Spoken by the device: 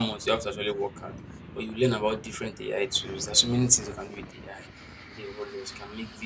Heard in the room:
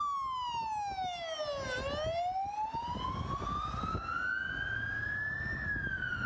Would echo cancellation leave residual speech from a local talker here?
No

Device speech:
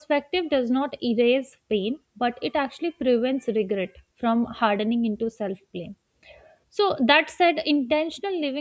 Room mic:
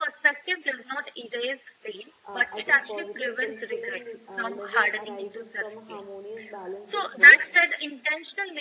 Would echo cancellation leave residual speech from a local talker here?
Yes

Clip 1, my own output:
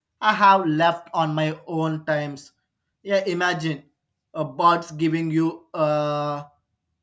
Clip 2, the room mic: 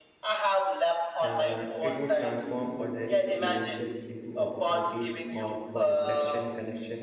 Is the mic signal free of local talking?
No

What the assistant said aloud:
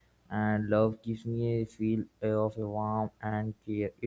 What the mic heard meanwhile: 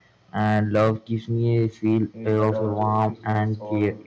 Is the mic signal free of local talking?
No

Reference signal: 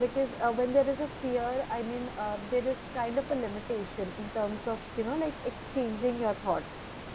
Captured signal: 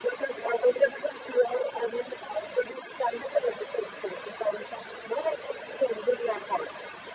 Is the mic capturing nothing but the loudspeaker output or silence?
Yes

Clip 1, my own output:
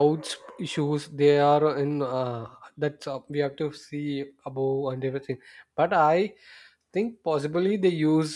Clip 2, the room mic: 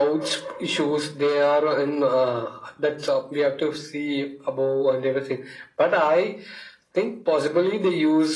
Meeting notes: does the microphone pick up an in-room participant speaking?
No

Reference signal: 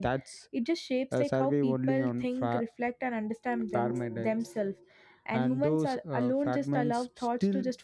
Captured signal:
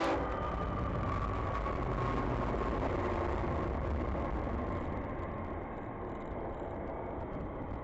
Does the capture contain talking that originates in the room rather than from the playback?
No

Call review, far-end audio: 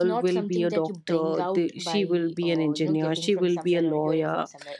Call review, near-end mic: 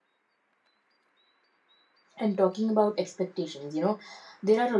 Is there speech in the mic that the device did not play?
Yes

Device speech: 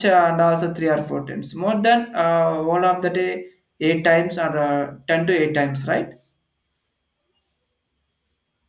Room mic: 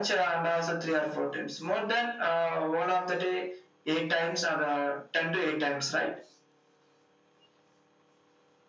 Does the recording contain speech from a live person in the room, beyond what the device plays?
No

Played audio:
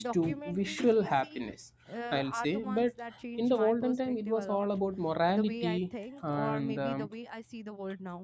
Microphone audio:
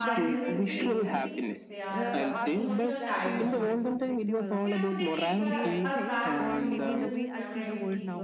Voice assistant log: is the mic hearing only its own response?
No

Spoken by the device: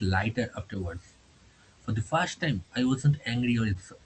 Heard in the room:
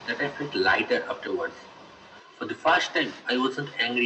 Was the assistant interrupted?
No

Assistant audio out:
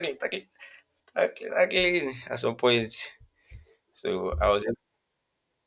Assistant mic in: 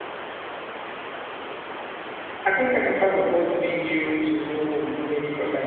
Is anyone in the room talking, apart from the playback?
Yes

